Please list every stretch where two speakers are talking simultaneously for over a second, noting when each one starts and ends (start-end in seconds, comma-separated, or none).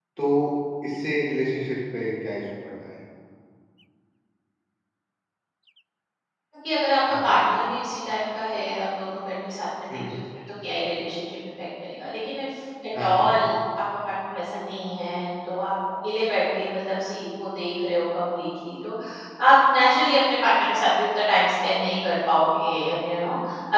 none